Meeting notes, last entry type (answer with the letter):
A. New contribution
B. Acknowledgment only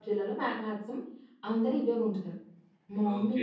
A